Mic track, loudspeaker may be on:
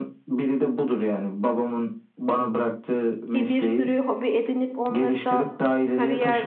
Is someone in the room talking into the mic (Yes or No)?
Yes